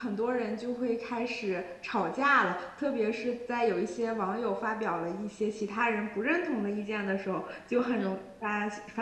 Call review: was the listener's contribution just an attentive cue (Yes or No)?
Yes